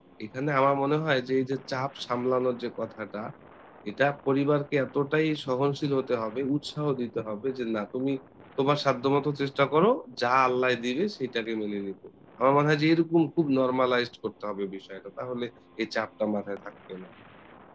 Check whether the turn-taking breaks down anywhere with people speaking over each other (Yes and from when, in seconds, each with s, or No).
No